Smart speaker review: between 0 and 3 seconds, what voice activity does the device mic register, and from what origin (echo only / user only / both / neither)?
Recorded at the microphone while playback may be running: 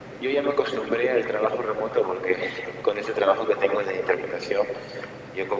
echo only